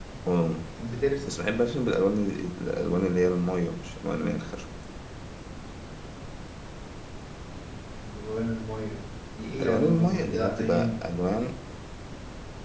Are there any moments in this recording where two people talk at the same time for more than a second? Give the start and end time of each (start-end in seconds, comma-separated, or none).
9.6-11.1